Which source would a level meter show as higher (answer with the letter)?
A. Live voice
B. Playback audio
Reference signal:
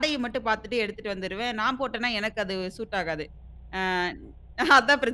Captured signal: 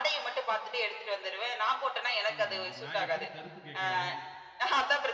B